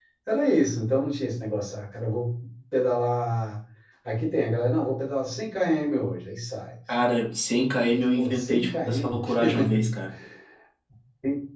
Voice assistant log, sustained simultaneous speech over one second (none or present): present